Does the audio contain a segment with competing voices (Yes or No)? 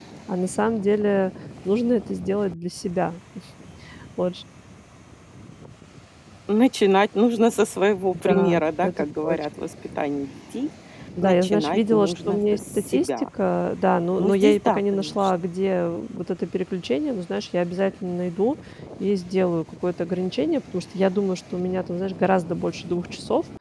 Yes